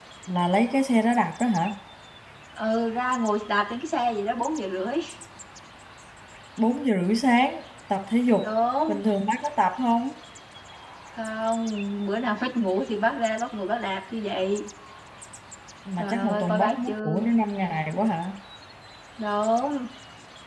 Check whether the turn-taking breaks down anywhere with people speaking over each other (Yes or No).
Yes